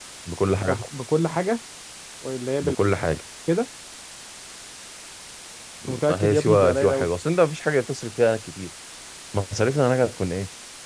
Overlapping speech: Yes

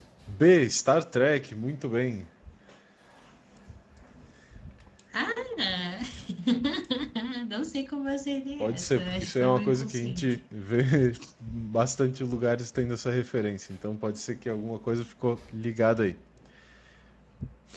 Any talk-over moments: Yes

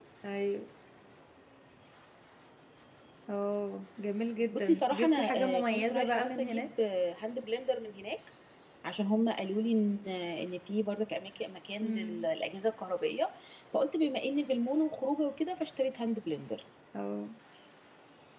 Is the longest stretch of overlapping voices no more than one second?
No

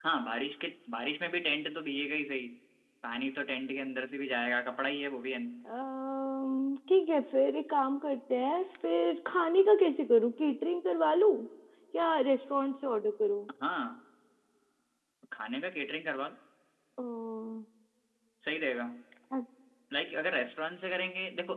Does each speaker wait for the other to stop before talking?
Yes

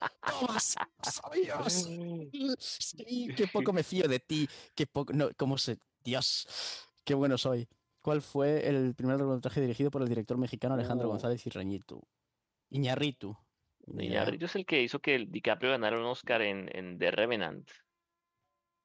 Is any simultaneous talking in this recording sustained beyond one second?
No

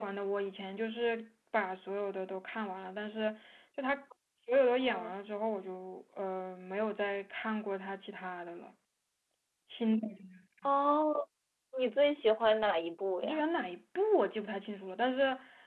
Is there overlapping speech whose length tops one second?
No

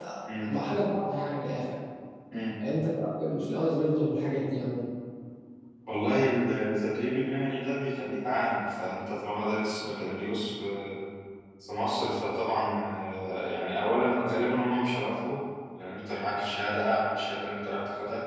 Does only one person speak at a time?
Yes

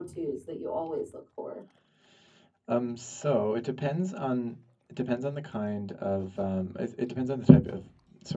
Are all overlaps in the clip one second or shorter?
Yes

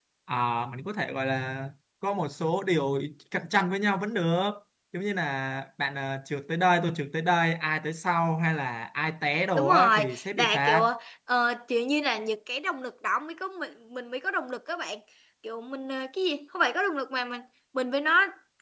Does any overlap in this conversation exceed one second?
Yes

